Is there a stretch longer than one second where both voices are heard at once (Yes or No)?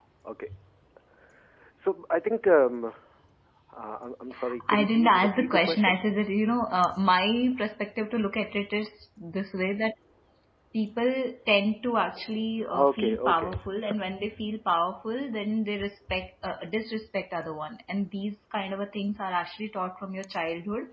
Yes